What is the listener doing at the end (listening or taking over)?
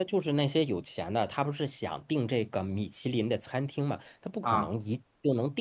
listening